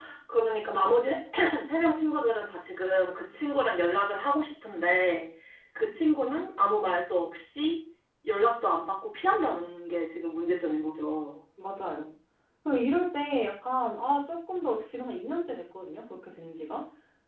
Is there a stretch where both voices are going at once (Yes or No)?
No